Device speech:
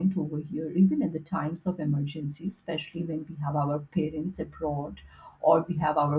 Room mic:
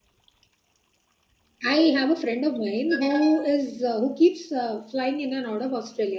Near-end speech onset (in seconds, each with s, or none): 1.7 s